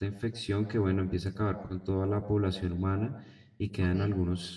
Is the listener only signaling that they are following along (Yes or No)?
Yes